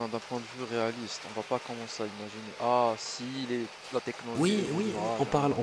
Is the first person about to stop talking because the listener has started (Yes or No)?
Yes